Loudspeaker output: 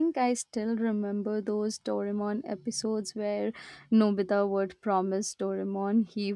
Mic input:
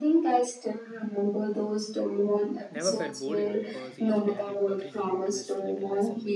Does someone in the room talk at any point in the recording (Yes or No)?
Yes